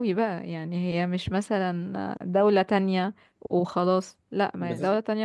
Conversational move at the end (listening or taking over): listening